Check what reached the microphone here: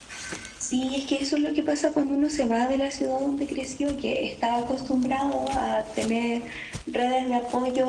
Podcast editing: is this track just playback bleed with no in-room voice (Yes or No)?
Yes